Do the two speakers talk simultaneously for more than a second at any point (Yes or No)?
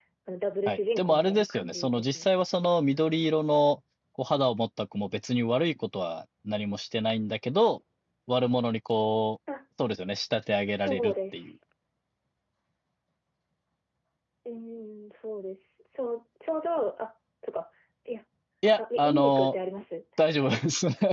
Yes